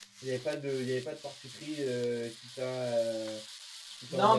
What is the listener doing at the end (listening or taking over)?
taking over